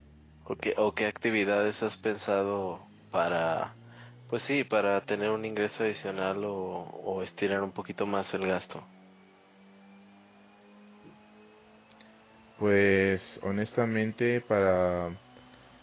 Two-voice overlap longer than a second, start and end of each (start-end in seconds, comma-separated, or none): none